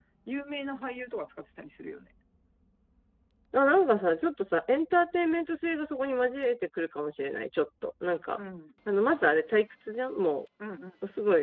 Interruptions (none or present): none